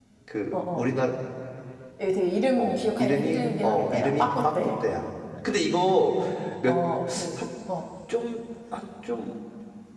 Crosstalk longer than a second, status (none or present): present